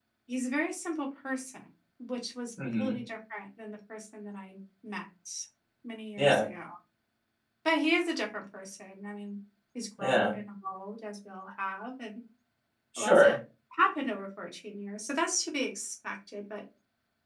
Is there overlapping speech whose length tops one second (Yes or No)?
No